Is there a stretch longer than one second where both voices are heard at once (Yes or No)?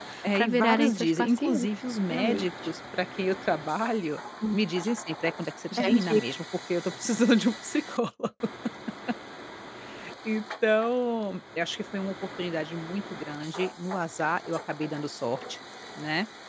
Yes